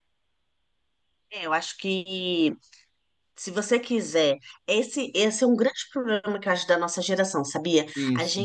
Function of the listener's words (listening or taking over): listening